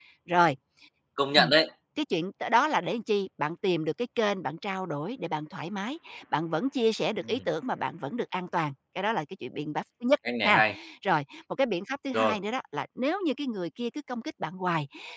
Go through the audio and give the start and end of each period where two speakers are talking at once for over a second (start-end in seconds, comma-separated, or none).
none